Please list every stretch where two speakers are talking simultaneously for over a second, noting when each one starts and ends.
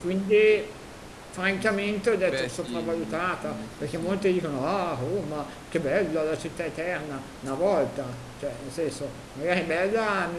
2.3-4.3

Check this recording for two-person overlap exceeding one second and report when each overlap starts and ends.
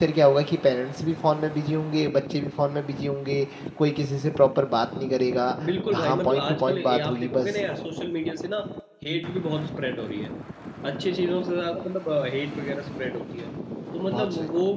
5.9-7.6

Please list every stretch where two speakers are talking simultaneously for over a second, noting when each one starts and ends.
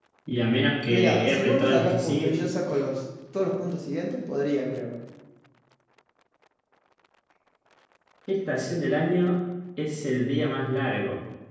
0.9-2.4

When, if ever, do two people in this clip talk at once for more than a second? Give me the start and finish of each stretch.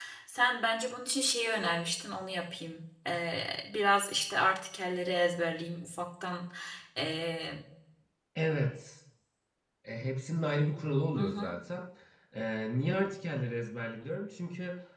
none

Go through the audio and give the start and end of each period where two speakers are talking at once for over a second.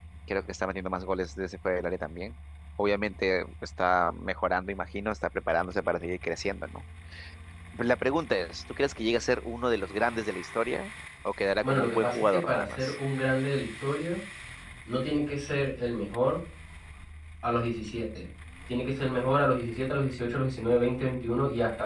11.6-12.9

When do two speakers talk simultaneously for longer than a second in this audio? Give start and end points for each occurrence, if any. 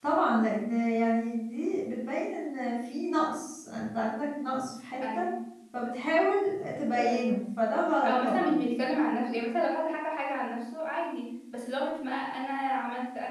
none

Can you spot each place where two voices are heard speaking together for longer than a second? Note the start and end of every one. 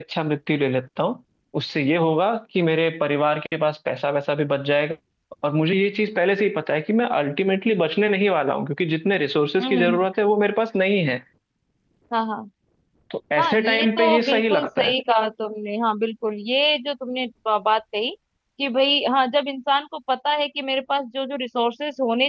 13.4-14.9

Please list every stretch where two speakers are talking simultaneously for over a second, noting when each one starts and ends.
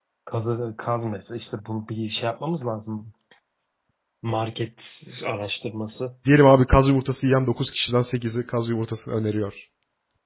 none

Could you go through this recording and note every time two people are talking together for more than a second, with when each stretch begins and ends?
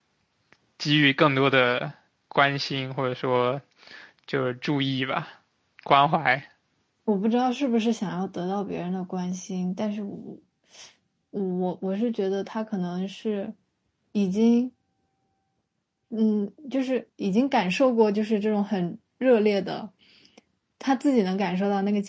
none

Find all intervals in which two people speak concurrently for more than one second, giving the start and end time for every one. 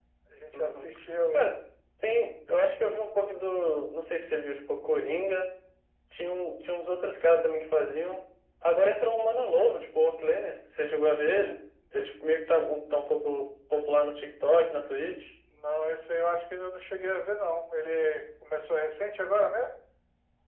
none

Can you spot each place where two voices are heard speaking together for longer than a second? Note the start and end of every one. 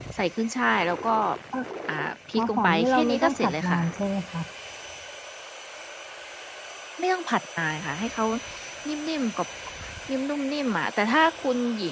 2.4-3.8

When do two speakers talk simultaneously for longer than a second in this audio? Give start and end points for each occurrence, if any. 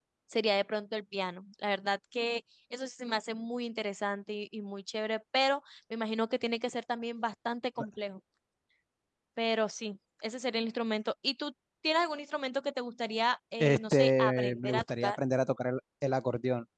13.6-15.2

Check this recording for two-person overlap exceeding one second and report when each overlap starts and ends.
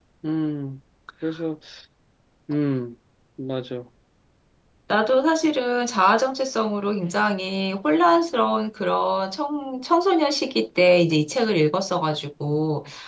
none

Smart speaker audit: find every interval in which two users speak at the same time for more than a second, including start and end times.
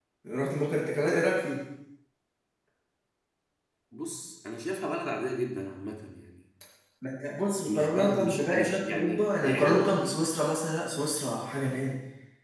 7.7-10.0

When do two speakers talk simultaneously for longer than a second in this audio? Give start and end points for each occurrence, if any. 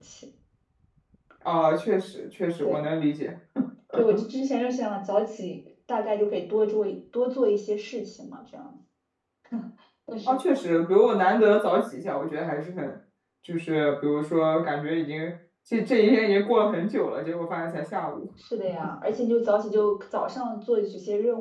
none

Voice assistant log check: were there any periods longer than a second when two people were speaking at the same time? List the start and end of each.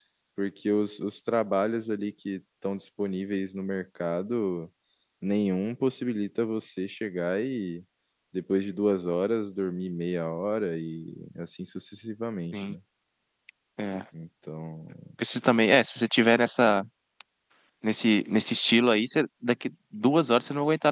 none

